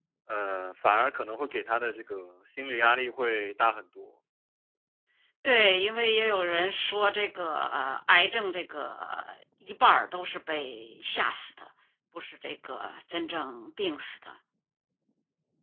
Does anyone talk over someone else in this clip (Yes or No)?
No